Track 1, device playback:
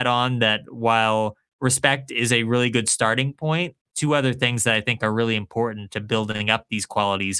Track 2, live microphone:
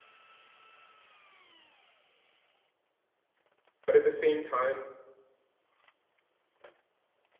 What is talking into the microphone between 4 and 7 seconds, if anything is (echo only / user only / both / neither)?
user only